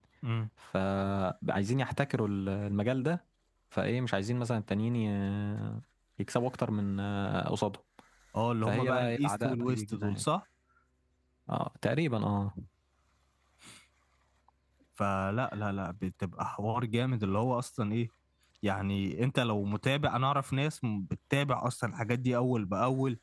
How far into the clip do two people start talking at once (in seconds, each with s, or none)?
8.7 s